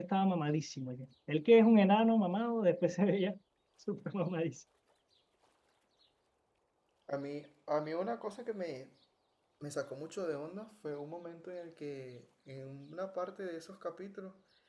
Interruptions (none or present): none